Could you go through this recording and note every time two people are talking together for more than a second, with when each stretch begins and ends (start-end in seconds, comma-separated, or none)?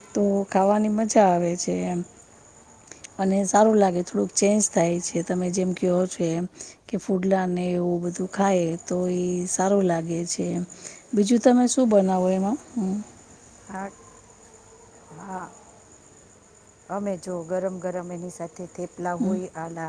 none